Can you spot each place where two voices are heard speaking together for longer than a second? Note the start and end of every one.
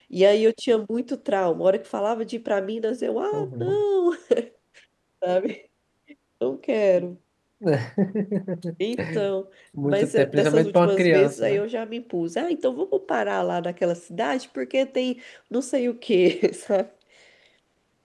9.8-11.6

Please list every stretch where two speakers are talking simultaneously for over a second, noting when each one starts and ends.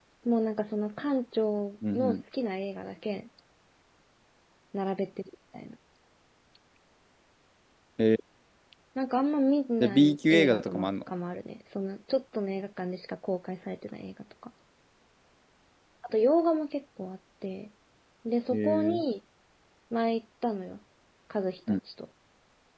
9.8-11.1

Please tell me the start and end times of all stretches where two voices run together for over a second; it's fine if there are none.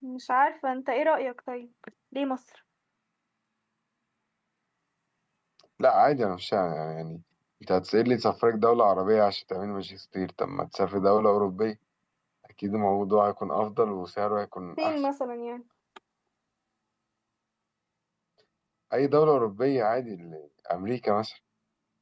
none

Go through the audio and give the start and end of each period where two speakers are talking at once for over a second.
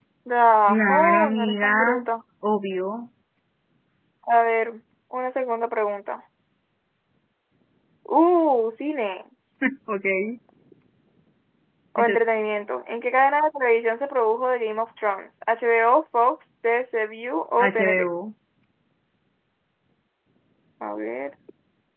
0.7-2.0

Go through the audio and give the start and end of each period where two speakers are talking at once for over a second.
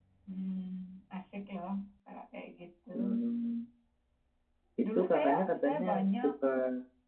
4.8-6.3

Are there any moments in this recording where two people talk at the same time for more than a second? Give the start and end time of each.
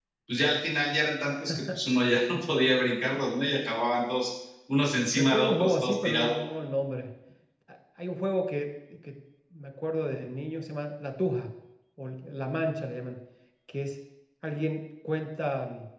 5.1-6.3

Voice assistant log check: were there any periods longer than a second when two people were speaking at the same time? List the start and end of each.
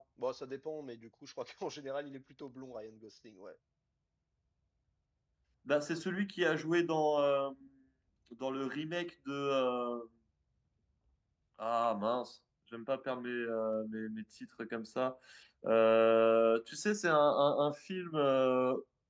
none

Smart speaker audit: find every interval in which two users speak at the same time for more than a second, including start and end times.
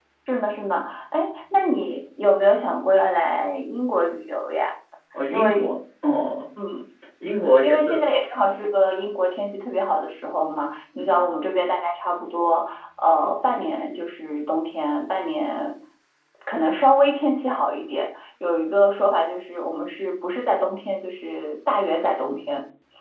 none

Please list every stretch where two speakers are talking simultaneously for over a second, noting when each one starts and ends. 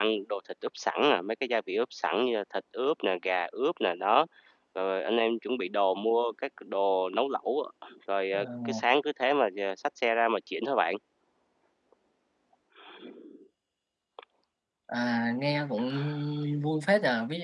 none

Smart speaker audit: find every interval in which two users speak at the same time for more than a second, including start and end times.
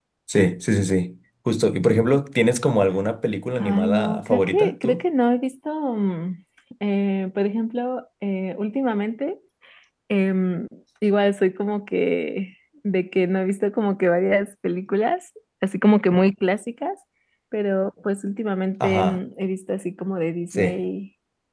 3.6-5.0

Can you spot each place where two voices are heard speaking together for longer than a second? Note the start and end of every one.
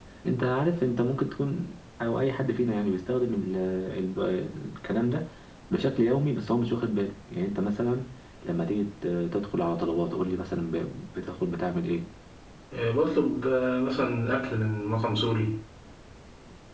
none

